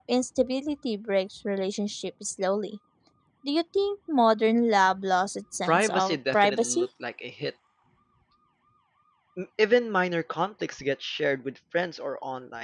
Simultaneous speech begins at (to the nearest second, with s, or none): 6 s